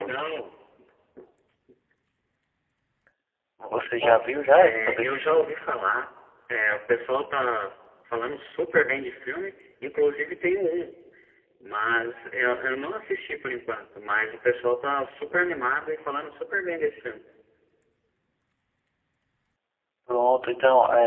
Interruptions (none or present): present